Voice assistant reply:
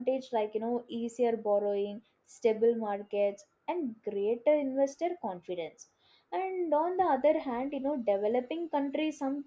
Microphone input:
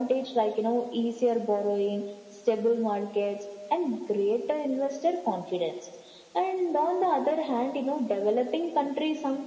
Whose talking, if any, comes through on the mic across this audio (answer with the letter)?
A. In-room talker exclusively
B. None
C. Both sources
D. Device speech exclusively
D